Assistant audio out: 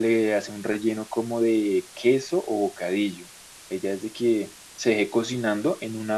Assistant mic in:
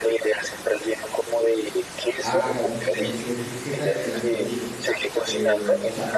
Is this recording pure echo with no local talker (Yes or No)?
No